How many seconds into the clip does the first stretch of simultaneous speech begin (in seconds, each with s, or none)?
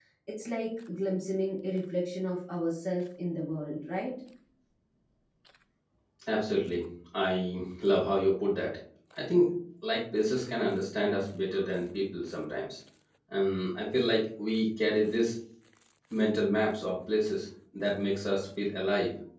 none